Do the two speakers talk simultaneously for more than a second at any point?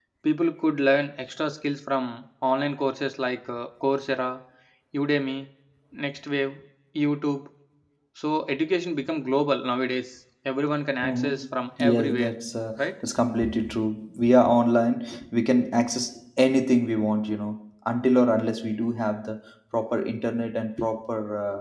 Yes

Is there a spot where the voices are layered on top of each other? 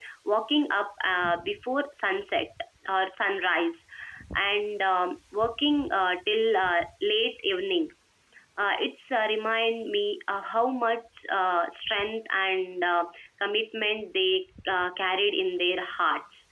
No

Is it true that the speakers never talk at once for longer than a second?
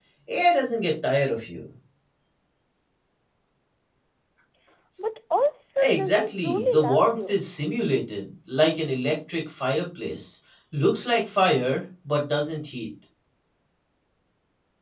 No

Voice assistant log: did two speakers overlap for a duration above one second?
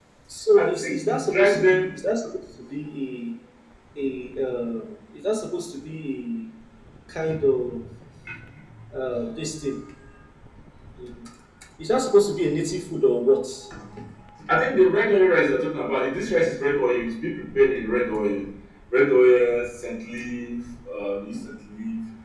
Yes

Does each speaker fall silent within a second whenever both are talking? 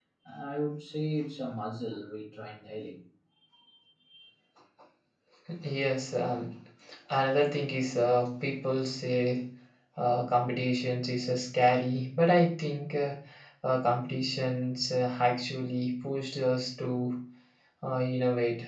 Yes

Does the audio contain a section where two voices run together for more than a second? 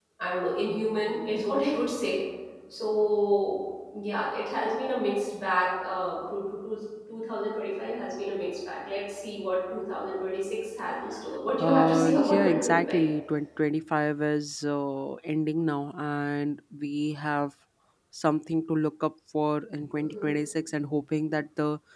Yes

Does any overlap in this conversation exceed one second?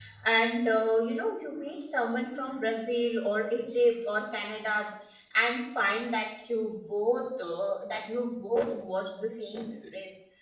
No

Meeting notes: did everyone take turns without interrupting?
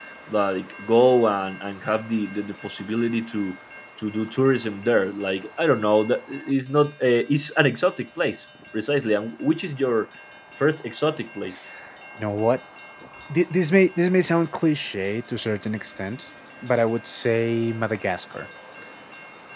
Yes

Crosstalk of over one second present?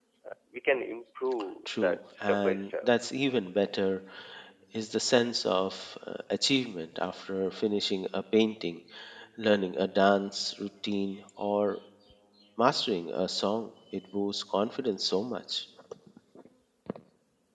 Yes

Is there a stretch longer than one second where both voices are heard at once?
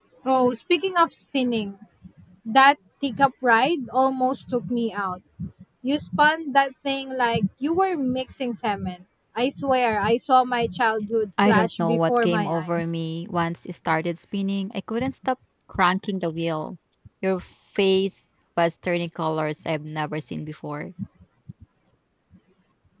Yes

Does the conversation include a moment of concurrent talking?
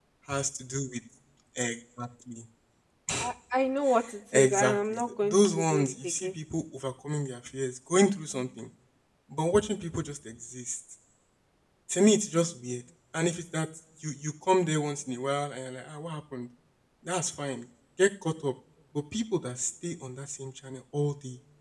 Yes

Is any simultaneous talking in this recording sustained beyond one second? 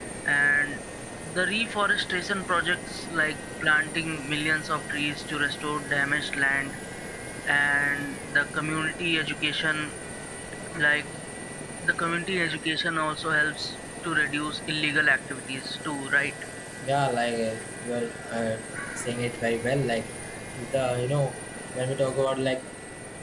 No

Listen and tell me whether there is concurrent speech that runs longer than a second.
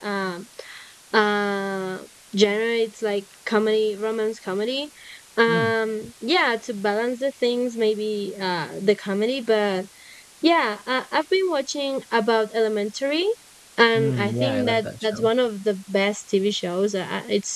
Yes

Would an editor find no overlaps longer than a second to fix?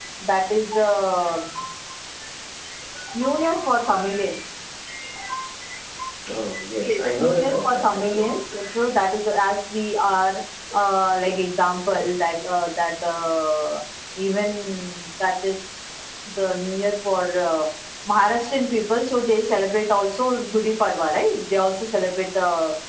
No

